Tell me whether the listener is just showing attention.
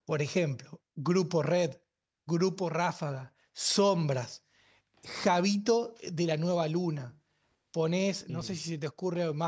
Yes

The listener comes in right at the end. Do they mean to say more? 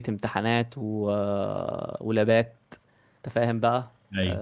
No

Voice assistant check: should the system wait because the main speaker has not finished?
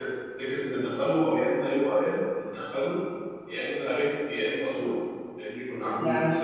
No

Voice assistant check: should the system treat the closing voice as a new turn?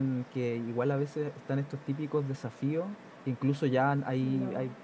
No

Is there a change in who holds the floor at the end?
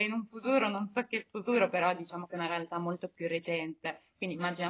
No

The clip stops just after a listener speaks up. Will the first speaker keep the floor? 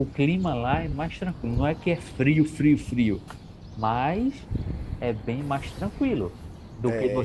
No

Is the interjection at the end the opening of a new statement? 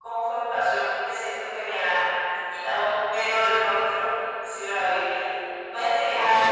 No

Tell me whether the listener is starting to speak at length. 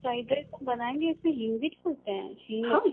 Yes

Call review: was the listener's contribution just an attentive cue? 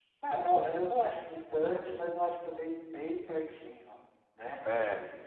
Yes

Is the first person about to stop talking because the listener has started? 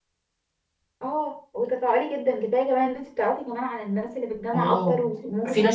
Yes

